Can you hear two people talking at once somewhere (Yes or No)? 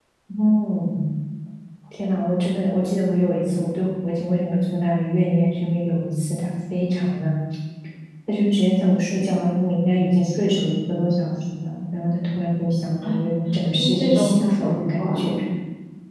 Yes